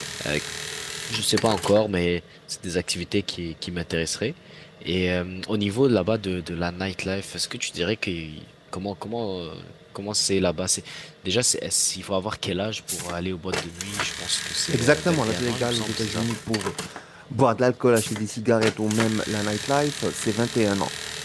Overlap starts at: 14.7 s

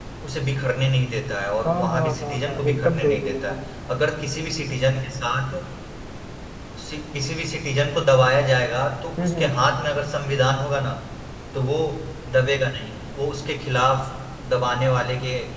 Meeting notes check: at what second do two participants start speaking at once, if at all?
1.6 s

